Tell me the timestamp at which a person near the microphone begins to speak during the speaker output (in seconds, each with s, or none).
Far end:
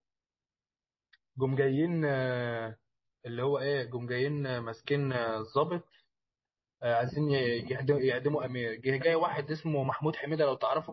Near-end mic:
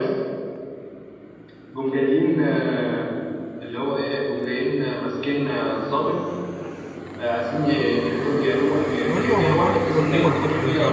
9.1 s